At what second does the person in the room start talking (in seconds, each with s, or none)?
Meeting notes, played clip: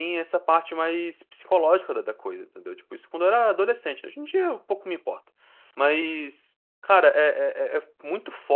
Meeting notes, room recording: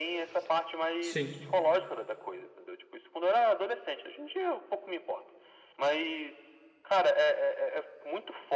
1.0 s